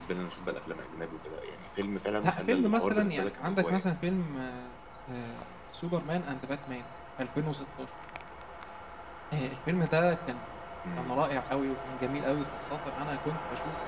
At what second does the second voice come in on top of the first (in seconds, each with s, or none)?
2.2 s